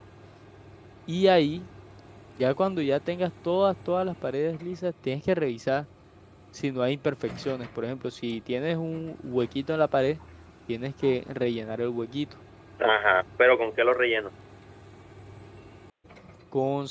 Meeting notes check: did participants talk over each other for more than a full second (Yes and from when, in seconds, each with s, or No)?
No